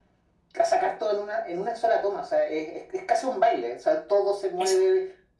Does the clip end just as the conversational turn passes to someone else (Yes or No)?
No